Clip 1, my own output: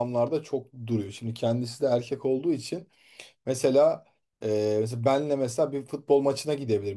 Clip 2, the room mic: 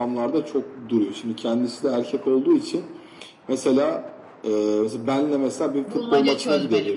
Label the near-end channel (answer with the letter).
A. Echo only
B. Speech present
B